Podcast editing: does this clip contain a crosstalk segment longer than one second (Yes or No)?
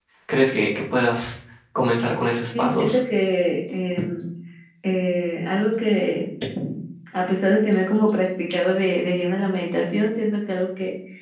No